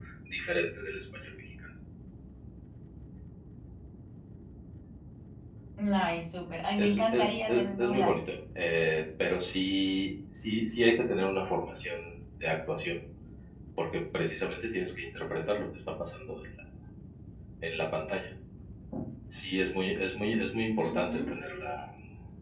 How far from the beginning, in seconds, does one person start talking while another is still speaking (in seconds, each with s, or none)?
6.8 s